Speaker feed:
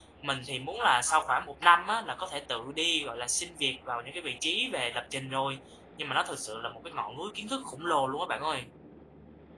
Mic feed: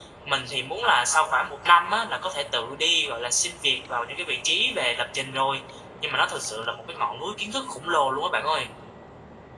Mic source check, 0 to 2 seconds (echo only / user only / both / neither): echo only